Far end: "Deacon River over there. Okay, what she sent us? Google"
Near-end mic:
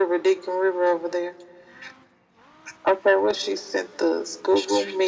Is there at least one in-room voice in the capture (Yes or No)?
No